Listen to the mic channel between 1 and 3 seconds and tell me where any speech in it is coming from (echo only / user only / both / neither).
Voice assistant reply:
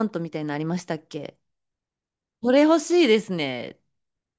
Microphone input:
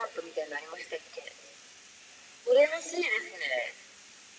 echo only